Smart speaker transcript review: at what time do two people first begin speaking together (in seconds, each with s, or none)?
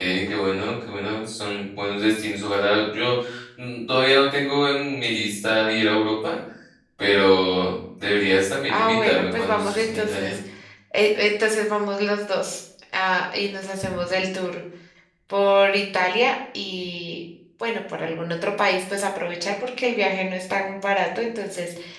8.7 s